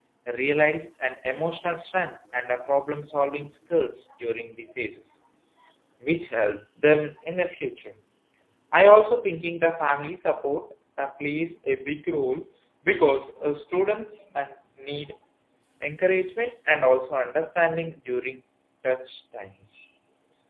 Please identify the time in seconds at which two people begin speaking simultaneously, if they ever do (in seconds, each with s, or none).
none